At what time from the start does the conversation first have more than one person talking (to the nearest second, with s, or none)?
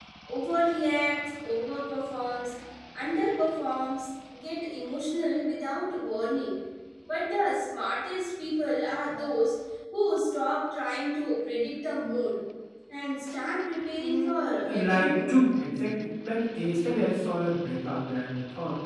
14 s